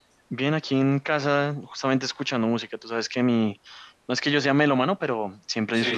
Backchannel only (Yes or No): Yes